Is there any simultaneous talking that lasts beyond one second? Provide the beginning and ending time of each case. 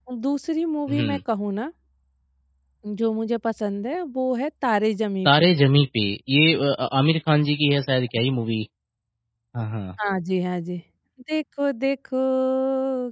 none

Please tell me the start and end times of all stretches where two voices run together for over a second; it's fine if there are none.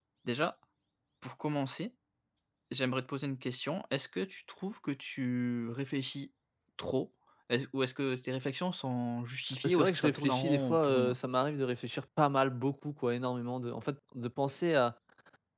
9.7-11.2

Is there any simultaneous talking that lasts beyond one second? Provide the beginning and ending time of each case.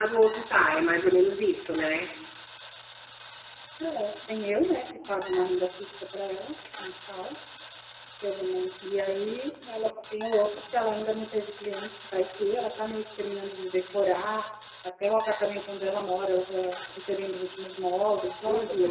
none

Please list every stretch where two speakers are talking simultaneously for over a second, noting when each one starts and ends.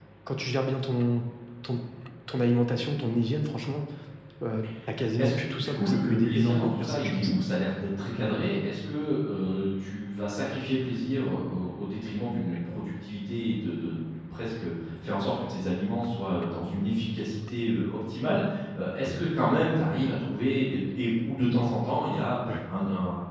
5.2-7.3

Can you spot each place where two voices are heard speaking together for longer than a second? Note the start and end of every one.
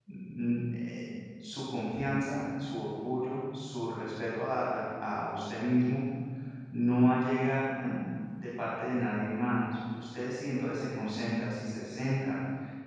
none

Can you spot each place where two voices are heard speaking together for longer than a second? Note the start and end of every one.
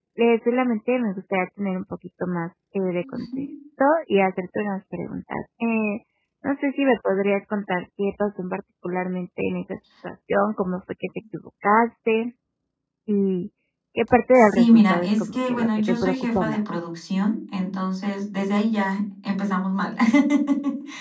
14.5-16.6

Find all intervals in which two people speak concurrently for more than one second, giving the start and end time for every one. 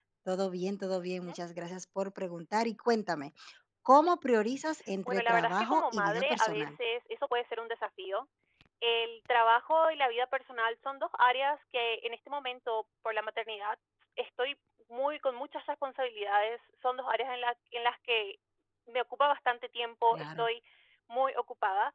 5.0-6.8

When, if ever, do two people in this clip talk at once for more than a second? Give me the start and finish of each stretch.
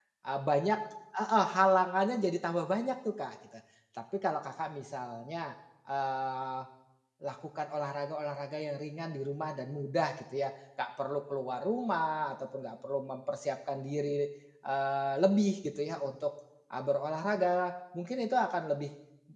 none

